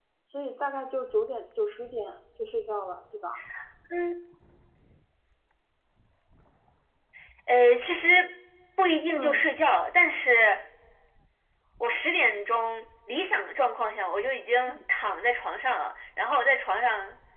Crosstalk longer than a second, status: none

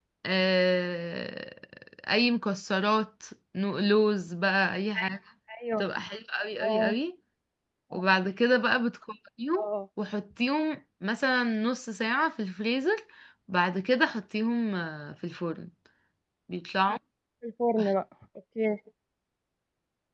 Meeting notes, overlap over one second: none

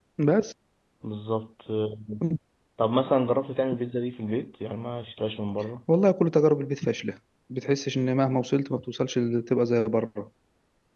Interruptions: none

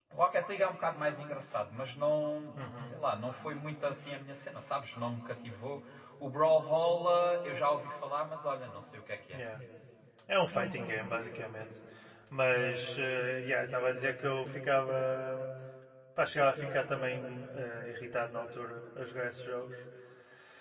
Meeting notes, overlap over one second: none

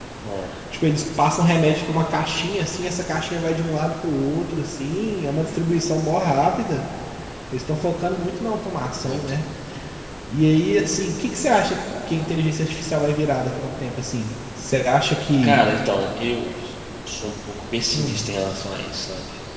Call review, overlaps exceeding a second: none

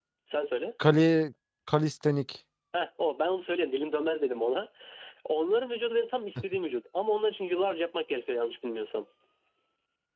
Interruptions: none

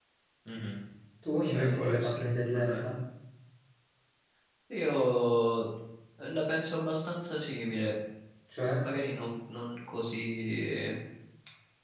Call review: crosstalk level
present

